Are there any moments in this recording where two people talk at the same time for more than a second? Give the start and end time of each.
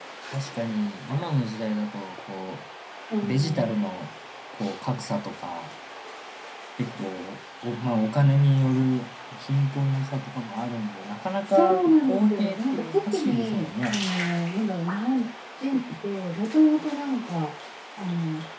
11.5-14.0

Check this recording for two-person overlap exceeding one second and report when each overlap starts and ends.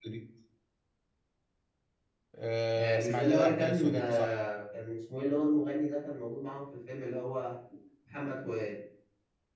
2.8-4.4

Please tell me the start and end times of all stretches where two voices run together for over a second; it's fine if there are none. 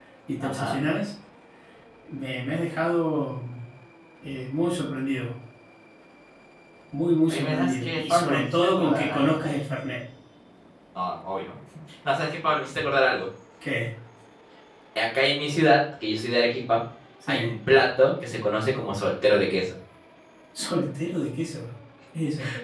7.3-9.4

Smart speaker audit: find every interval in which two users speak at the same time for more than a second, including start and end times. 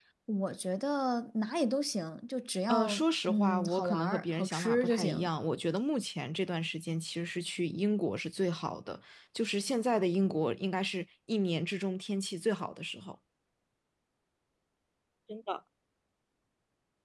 2.7-5.3

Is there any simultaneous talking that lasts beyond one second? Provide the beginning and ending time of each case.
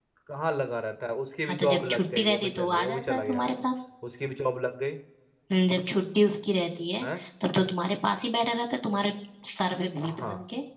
1.5-3.5

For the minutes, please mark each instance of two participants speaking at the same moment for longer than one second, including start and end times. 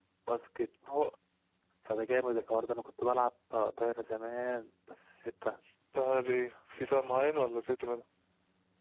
none

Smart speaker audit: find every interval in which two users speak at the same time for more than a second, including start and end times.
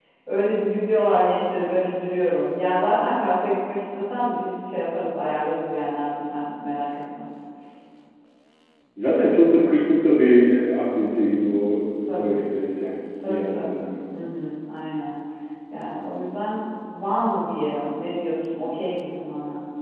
none

